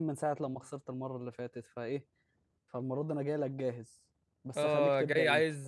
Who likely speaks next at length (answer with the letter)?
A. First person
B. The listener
B